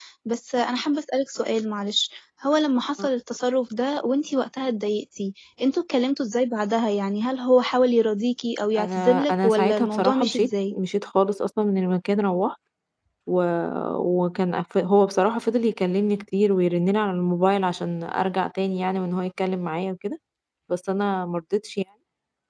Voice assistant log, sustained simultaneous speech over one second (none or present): present